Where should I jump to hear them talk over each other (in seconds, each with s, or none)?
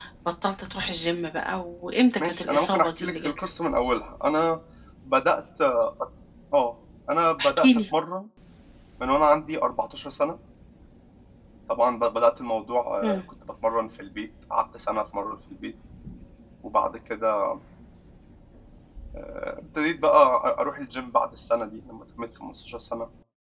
2.2 s